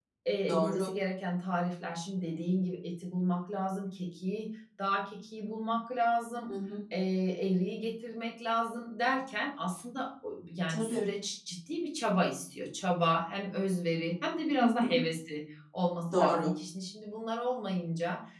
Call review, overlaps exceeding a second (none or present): none